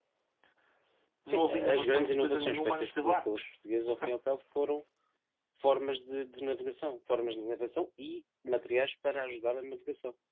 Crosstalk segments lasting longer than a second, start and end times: 1.3-3.4

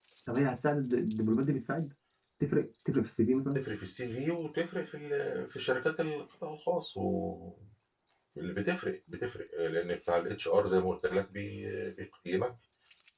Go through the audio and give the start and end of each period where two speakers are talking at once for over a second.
none

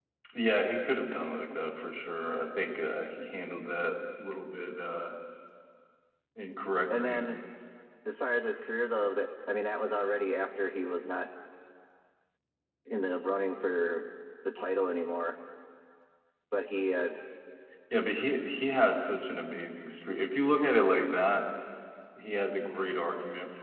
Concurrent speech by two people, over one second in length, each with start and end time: none

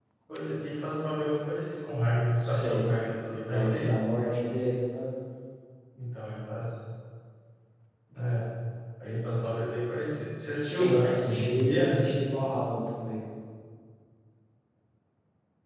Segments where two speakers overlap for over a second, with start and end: 10.6-12.0

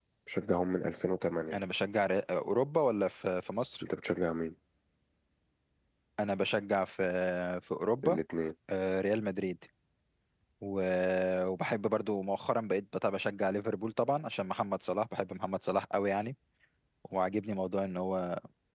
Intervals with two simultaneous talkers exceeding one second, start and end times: none

